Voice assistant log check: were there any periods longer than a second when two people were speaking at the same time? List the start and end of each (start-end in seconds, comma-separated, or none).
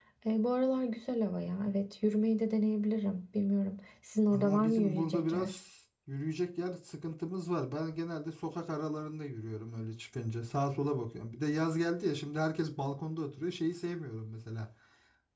4.3-5.5